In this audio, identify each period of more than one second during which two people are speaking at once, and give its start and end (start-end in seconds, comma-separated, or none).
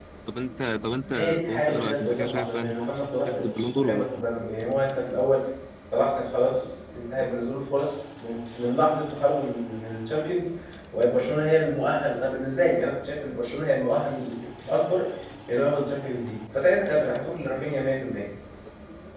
1.1-4.1